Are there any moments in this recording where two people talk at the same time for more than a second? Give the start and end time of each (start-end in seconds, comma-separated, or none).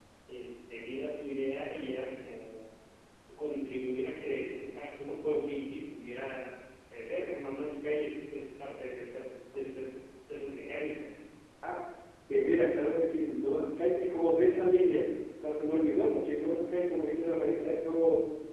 none